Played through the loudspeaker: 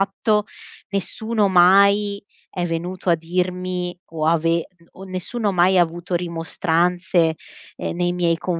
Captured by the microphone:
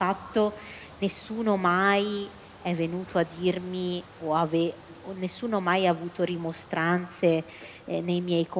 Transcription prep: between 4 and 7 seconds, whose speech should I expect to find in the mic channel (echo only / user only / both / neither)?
echo only